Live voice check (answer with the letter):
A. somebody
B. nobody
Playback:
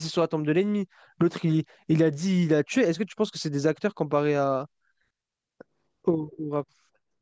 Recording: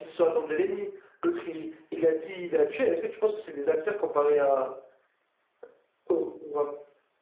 B